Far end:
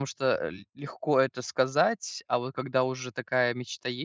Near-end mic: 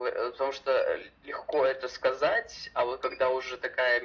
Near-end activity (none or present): none